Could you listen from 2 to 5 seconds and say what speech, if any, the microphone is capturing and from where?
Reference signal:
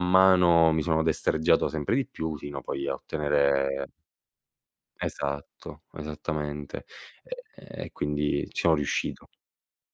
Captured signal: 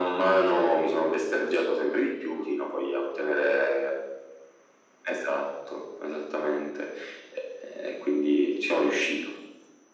echo only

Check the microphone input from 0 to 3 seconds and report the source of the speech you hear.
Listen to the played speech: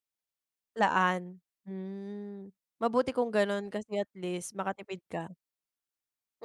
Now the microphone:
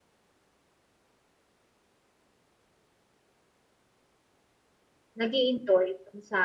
neither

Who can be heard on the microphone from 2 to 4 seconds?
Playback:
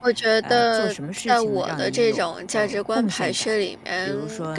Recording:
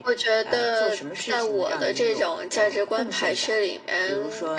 echo only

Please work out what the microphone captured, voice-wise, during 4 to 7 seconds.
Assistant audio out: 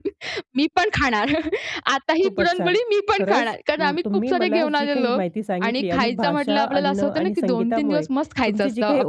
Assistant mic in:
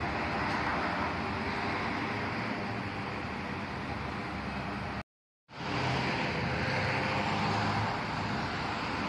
neither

